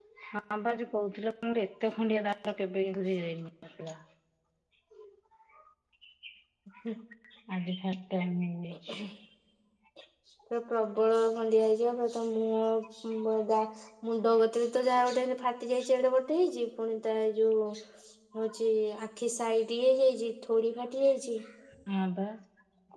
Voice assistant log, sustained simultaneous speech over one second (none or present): none